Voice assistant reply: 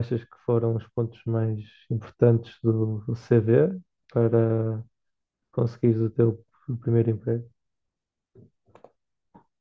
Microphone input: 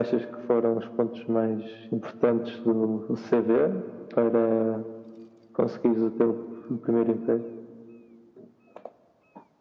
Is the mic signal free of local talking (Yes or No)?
Yes